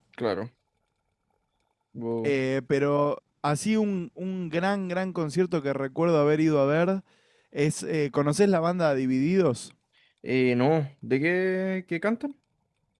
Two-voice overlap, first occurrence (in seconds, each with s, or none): none